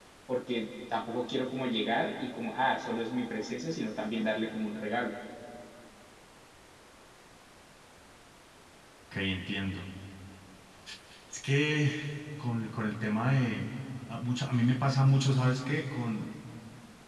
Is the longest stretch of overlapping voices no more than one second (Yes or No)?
Yes